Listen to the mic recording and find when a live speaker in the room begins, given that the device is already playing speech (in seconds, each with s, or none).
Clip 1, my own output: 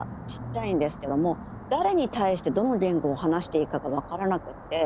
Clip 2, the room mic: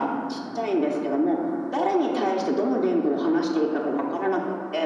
none